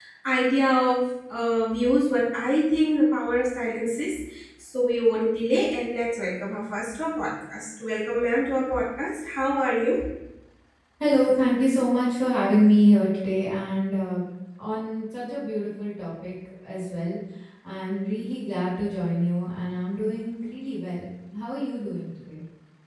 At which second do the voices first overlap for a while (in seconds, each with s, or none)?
none